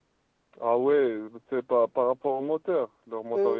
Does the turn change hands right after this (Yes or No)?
Yes